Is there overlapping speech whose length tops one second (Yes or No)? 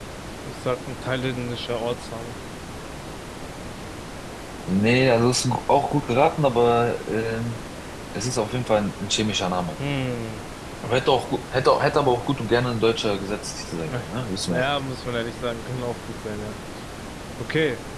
No